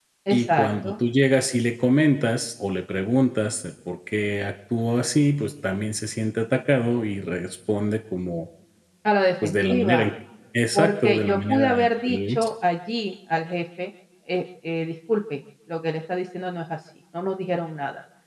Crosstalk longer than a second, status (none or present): present